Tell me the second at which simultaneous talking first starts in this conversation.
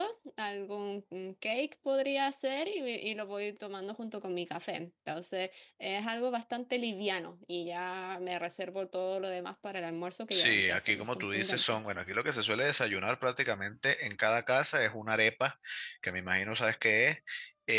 10 s

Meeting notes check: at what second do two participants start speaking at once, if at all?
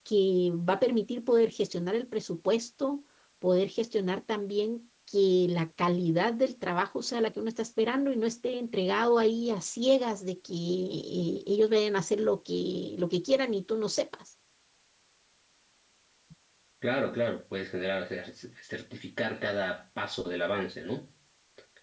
none

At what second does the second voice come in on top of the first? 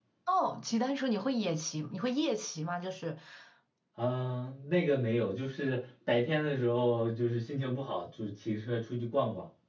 none

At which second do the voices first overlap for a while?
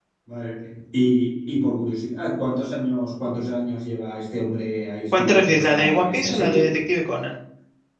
5 s

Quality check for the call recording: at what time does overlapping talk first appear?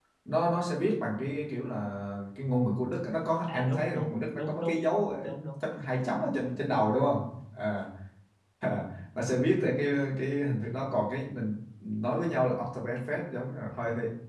3 s

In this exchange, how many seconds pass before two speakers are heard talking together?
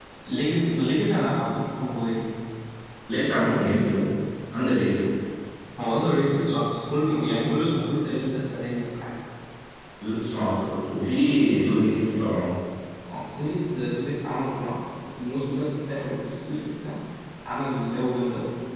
none

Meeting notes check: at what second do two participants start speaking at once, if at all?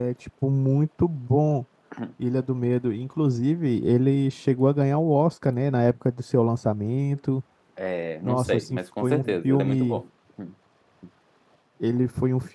8 s

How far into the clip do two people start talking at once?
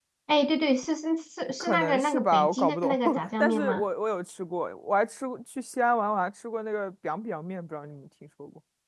2 s

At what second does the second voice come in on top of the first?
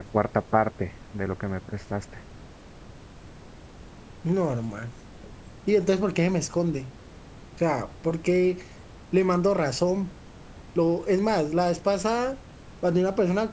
none

